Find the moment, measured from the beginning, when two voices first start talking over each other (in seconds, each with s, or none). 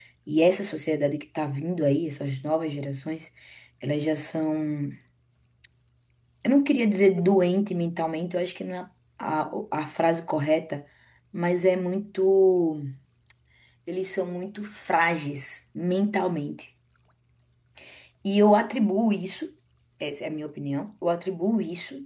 none